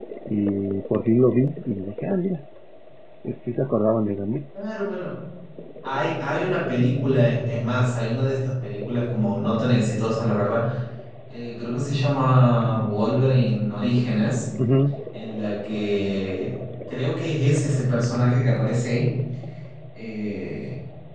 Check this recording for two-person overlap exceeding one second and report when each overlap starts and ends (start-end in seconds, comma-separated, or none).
none